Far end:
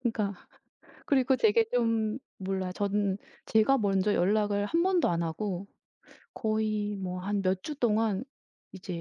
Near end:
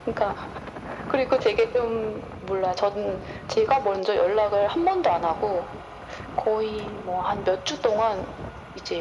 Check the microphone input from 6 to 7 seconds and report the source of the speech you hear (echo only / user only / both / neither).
echo only